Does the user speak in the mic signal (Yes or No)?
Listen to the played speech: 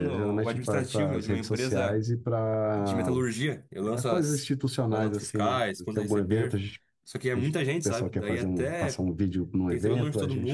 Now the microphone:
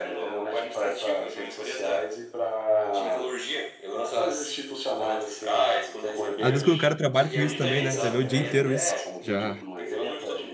Yes